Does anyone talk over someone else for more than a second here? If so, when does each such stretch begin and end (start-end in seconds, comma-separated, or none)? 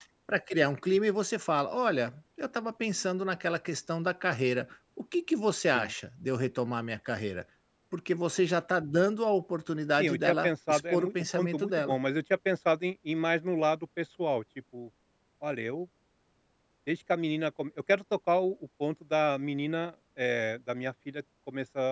10.0-12.0